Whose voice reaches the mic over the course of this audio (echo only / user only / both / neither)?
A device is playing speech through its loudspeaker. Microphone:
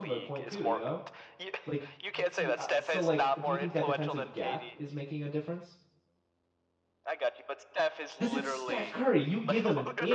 both